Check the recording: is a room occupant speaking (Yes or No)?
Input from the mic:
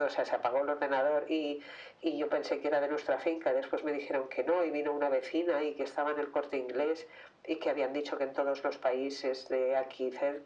No